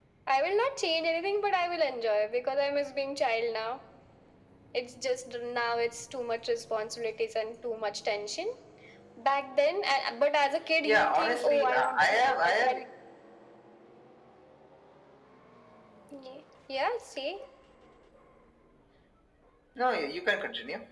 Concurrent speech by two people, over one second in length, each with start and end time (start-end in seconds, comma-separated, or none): 10.8-12.7